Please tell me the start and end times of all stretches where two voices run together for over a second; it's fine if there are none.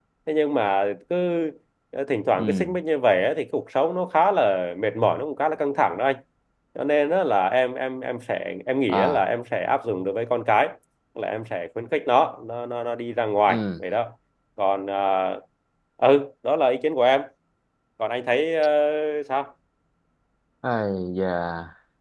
none

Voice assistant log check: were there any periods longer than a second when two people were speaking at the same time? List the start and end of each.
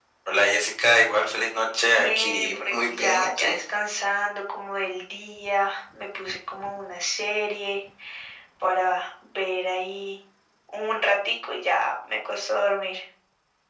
1.9-3.5

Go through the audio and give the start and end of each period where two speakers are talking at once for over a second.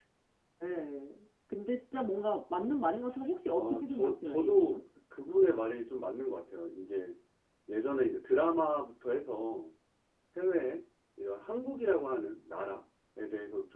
3.6-4.8

